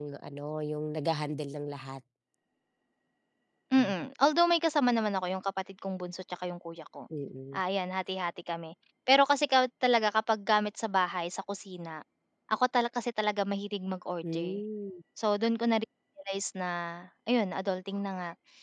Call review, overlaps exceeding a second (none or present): none